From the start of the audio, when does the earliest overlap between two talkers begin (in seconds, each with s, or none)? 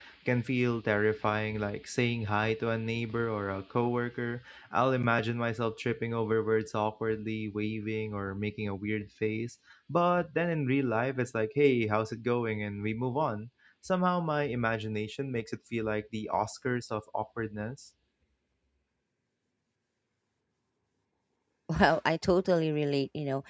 none